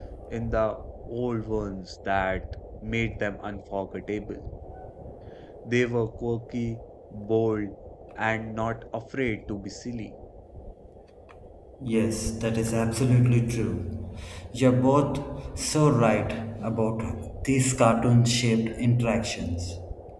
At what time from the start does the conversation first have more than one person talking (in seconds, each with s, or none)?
none